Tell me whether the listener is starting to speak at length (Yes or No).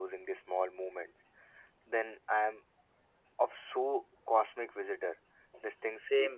Yes